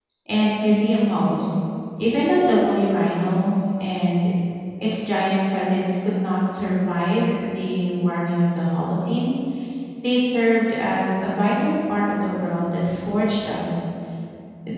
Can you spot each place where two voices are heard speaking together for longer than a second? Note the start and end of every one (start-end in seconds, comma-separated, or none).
none